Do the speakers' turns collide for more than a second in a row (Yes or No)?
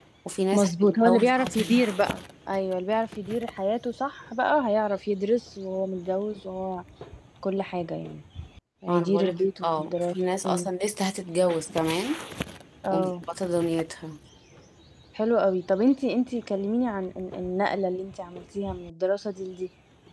Yes